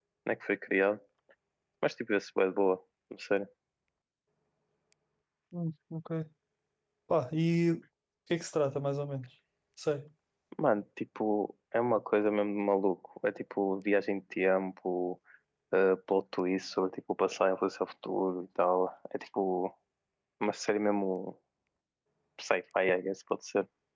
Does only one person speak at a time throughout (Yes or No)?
Yes